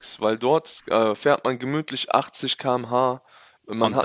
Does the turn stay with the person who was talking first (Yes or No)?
Yes